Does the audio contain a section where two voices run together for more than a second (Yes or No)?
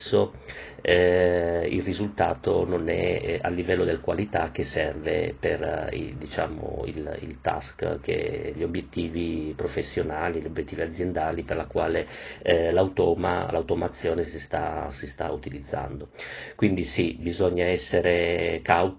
No